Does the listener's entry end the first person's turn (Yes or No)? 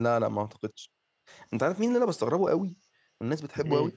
No